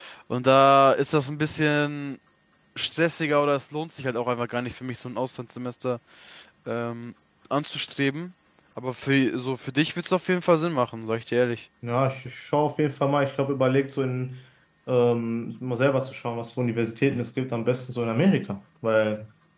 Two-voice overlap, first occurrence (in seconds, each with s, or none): none